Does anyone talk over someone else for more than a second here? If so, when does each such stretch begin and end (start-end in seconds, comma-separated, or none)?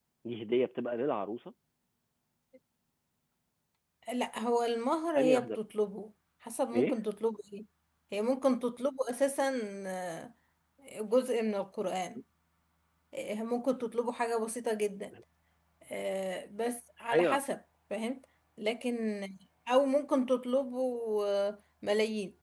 none